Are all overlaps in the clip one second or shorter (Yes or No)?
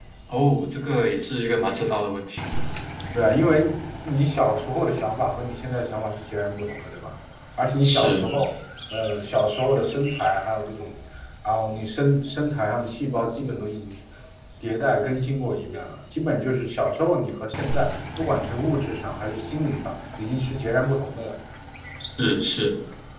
Yes